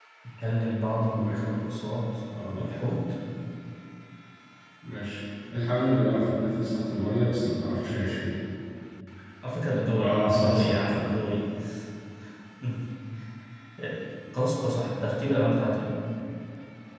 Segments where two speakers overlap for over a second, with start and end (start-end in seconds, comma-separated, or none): 9.9-11.2